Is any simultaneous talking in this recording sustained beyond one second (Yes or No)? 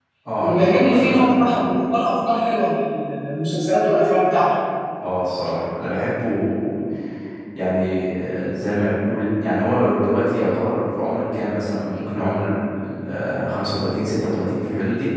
Yes